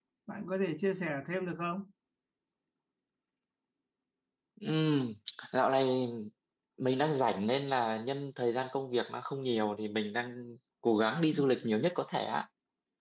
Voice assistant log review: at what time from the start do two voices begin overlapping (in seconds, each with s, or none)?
none